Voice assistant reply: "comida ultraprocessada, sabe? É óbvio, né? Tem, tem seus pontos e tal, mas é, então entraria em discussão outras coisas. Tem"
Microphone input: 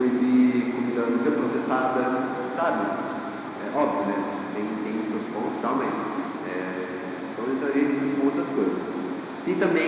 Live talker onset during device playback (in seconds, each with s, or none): none